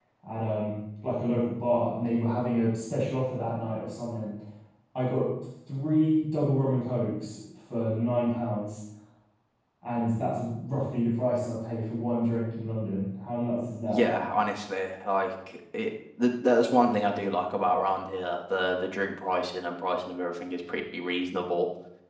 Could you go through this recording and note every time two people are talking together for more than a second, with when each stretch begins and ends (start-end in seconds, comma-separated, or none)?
none